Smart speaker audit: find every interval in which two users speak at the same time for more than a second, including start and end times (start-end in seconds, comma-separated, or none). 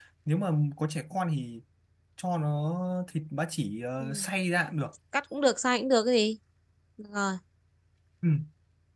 none